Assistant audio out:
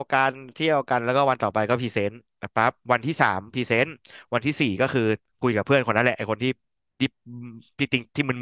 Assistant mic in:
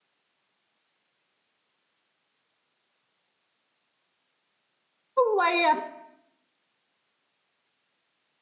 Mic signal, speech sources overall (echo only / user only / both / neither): user only